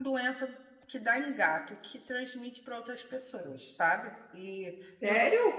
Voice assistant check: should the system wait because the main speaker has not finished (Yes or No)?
No